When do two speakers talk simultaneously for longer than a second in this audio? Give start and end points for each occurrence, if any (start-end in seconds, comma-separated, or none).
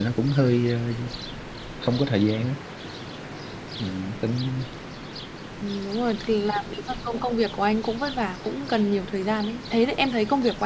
none